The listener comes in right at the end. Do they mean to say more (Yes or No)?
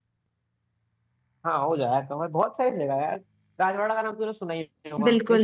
Yes